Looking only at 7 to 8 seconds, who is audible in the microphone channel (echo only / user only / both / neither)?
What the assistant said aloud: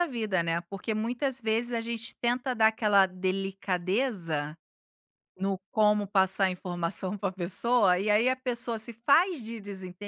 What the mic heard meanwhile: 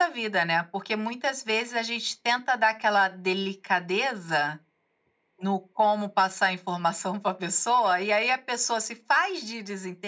echo only